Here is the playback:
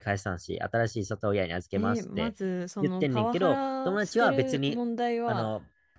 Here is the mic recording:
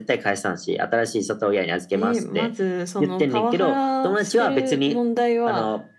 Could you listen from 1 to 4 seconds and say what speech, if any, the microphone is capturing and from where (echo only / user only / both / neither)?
echo only